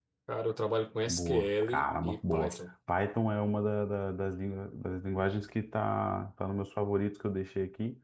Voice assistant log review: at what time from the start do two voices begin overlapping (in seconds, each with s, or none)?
1.1 s